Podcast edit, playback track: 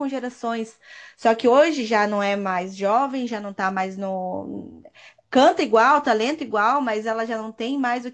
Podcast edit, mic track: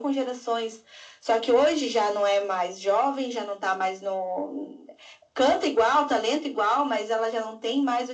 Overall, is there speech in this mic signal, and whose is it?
echo only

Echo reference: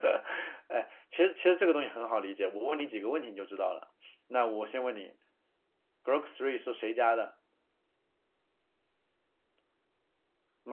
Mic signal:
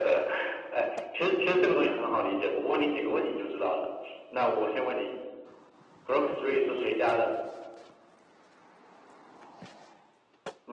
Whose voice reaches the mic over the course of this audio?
echo only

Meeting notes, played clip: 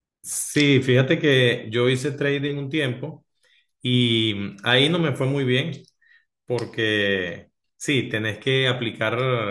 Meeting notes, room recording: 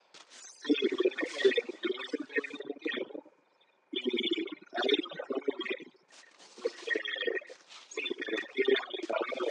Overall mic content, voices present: echo only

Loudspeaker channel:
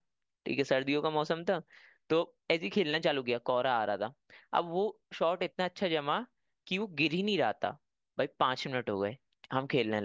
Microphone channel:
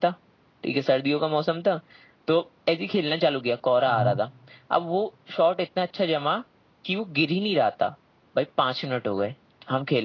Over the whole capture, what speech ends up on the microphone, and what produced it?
both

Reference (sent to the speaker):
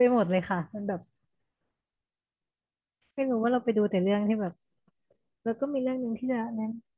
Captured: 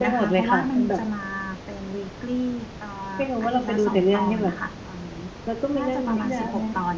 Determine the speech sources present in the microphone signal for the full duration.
both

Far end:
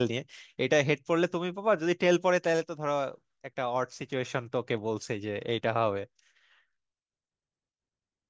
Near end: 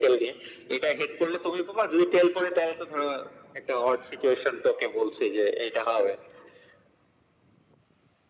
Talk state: echo only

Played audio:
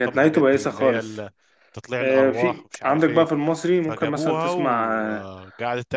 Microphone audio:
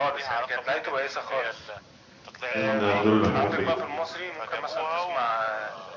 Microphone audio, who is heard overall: both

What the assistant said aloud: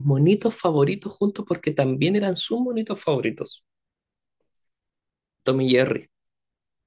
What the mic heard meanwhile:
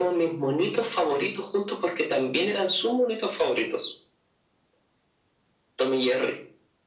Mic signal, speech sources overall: echo only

